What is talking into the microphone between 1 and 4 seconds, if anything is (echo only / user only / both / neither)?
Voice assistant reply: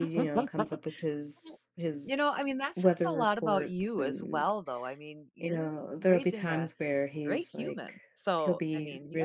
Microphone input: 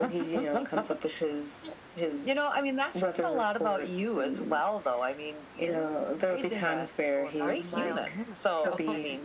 echo only